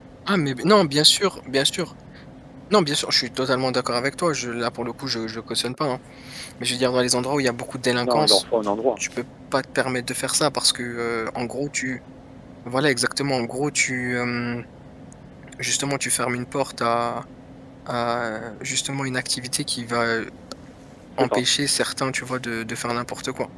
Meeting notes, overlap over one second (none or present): none